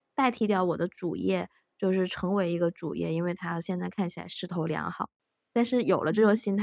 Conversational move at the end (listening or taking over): listening